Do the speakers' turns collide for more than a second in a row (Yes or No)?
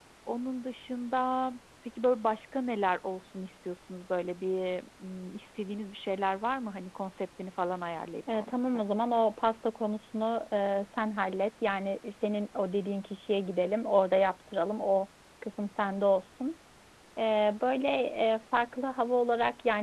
No